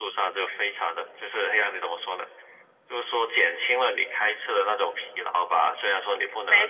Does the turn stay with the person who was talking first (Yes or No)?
Yes